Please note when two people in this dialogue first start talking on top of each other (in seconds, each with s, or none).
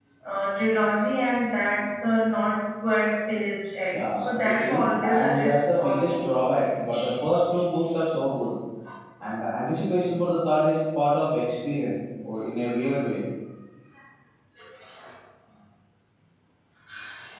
3.9 s